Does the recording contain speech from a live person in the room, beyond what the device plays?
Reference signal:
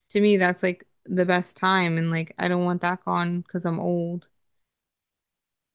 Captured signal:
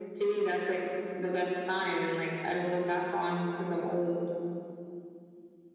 No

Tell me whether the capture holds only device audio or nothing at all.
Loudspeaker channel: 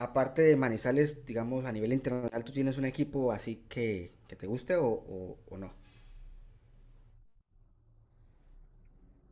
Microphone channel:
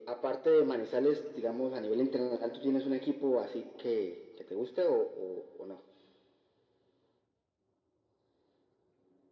Yes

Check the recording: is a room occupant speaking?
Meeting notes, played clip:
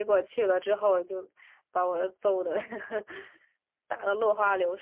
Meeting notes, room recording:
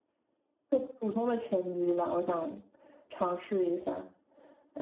Yes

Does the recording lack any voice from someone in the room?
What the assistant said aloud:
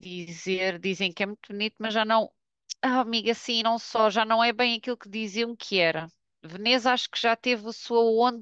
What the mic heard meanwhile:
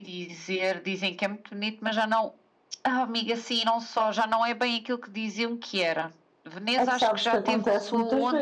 No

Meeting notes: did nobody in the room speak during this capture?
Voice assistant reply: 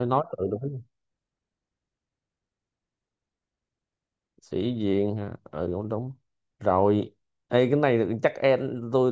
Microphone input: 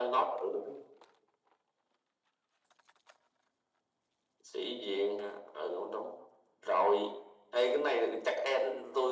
Yes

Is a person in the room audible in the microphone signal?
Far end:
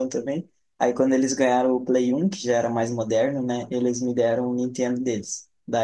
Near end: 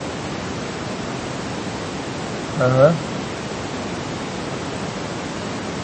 Yes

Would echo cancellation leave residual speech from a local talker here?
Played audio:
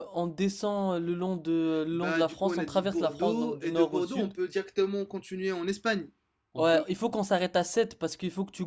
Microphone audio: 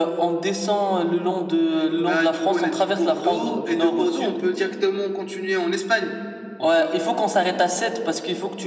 No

